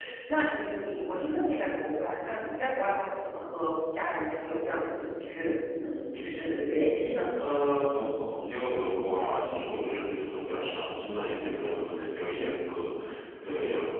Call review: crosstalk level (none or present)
none